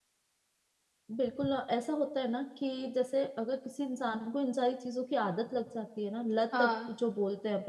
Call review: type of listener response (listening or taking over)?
listening